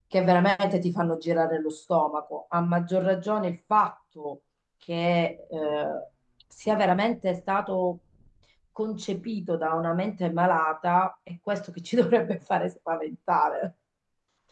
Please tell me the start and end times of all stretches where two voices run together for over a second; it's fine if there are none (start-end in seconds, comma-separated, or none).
none